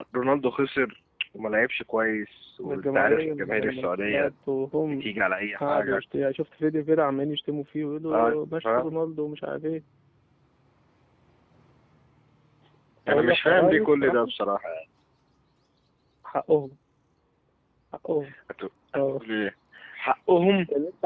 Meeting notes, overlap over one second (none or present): present